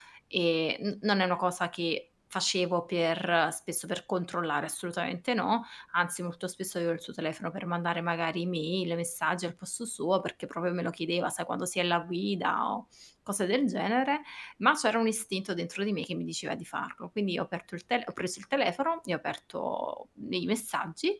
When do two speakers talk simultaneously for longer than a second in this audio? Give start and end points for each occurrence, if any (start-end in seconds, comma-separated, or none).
none